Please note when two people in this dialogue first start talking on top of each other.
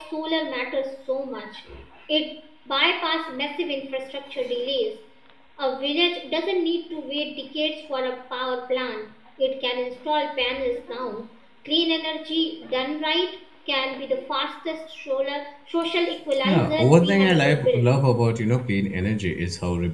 16 s

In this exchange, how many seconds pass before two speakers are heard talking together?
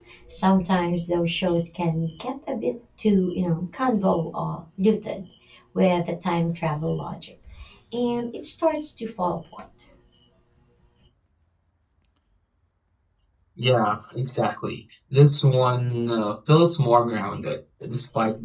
none

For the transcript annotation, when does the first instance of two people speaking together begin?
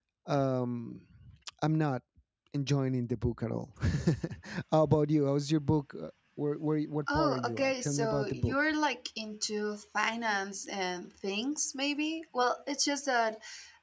7 s

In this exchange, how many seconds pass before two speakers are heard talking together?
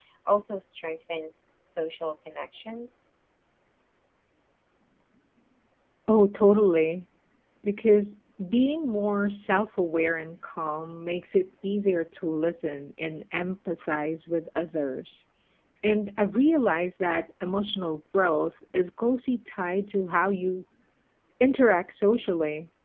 none

